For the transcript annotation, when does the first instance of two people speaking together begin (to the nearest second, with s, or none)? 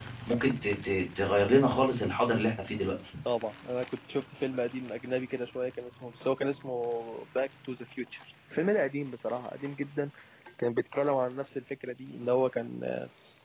none